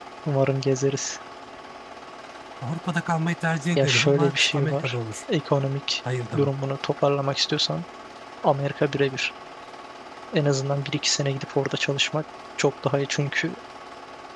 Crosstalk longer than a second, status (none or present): present